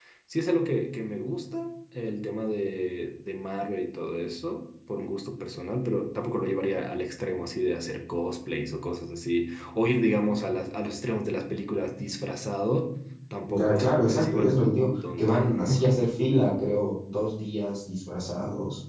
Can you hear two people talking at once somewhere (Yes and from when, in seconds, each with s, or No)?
Yes, from 13.5 s